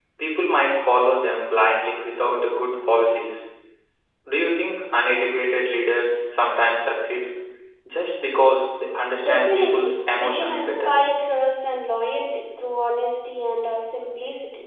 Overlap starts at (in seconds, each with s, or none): 9.2 s